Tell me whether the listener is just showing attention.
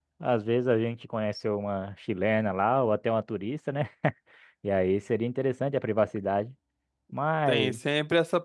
No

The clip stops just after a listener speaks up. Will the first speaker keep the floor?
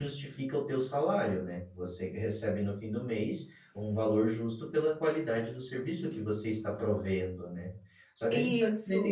Yes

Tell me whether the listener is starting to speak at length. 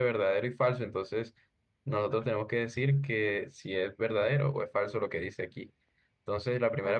Yes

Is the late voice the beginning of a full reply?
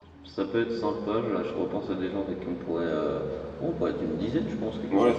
Yes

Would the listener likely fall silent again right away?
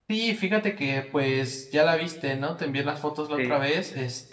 Yes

